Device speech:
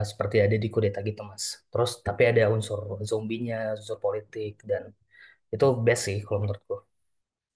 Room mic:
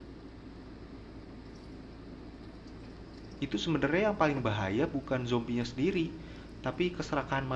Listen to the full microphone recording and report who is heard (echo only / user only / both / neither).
user only